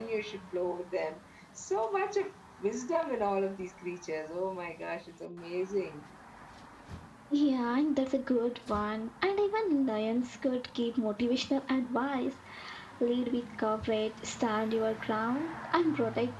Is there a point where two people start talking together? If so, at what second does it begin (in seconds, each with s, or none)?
none